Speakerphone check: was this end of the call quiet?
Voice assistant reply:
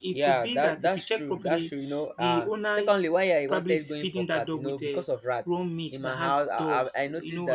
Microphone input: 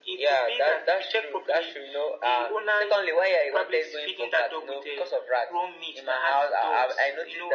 Yes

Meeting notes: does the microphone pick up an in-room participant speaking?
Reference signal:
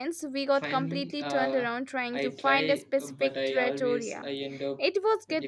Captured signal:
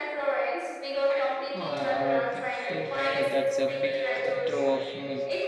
Yes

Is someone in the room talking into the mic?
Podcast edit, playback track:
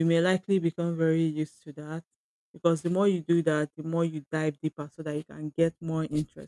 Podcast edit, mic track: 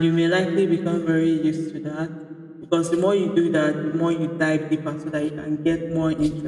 No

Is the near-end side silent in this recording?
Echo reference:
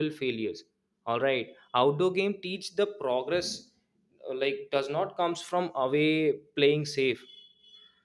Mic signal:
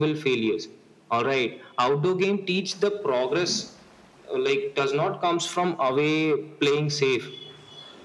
Yes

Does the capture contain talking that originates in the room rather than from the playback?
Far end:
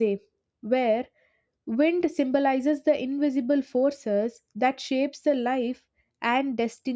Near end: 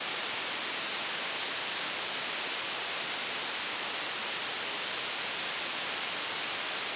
No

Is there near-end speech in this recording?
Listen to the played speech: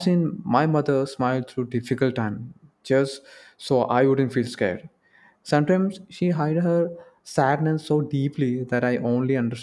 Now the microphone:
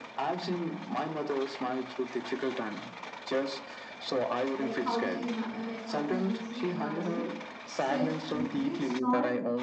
Yes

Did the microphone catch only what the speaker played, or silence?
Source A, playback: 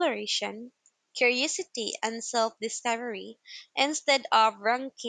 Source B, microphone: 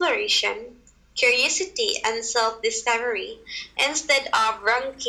Yes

